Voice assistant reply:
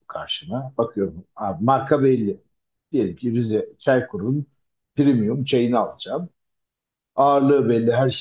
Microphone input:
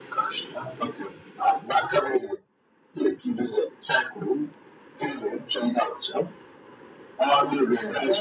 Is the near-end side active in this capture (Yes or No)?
Yes